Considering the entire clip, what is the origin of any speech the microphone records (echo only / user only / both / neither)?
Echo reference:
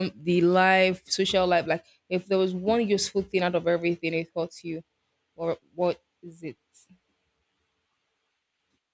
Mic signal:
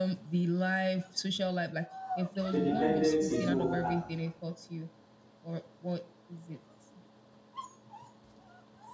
both